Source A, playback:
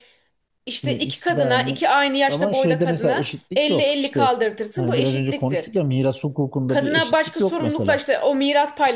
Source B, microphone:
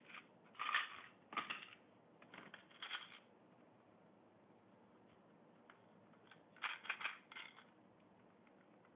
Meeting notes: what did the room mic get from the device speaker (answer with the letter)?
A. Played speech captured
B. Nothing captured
B